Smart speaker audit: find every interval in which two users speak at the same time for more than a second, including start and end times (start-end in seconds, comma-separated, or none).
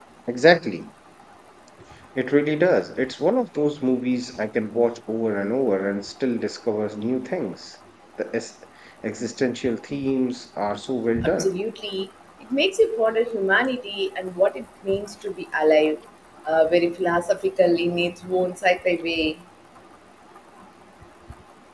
none